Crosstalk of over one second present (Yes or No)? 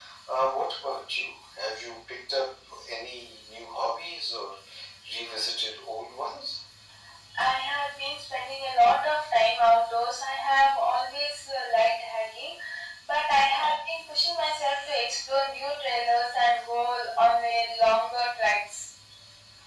No